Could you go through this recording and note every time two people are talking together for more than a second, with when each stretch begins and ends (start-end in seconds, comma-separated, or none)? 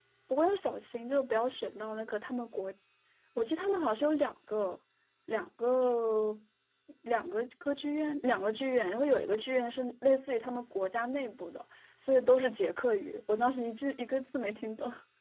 none